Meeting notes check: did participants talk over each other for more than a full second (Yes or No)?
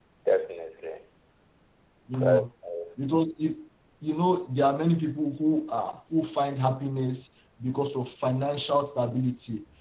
No